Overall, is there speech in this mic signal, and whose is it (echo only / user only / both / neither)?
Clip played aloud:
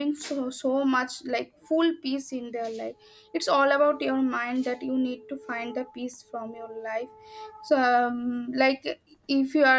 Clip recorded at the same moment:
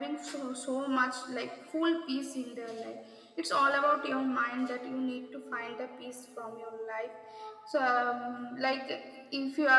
echo only